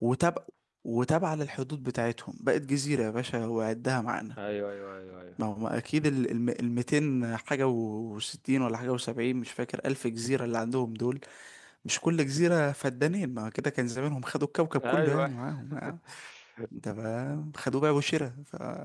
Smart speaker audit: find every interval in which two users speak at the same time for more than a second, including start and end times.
none

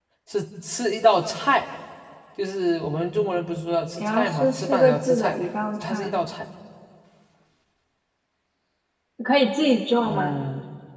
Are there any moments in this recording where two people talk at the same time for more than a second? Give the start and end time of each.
4.0-5.4

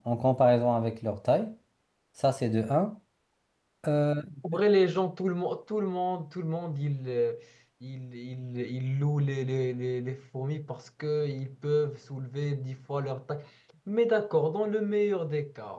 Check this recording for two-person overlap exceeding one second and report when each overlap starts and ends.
none

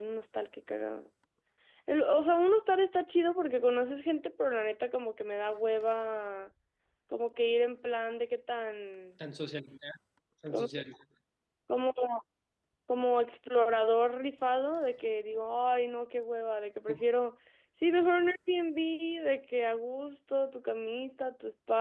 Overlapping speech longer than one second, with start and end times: none

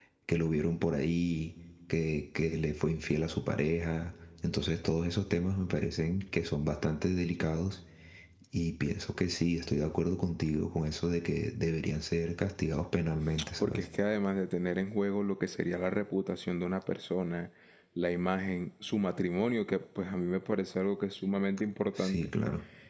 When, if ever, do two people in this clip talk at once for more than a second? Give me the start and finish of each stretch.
none

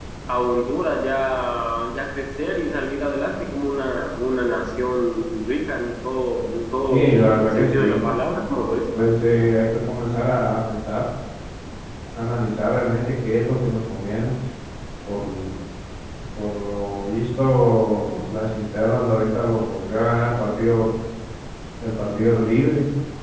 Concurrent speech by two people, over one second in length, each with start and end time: 6.9-8.1

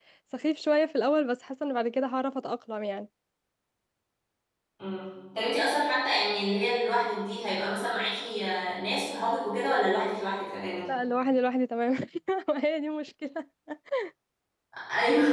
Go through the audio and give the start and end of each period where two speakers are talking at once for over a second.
none

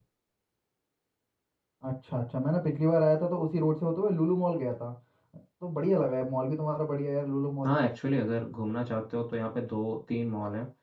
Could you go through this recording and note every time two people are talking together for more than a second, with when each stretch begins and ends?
none

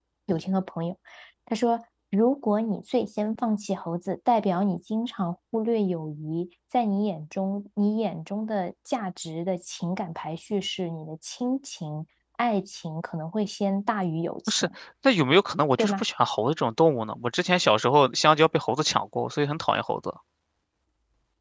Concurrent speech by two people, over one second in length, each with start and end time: none

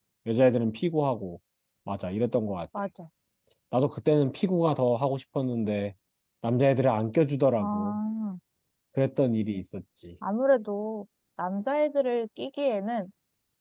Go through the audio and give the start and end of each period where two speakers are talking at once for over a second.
none

